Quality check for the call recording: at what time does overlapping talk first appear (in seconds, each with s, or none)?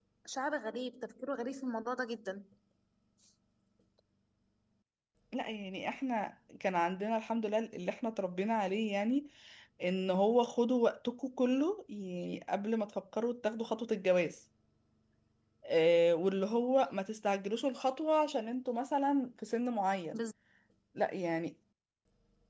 none